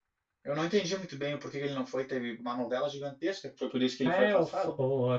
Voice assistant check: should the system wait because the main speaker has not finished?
No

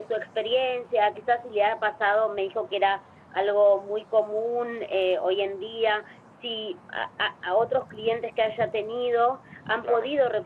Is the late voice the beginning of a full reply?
No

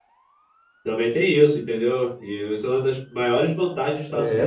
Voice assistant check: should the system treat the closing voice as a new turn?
Yes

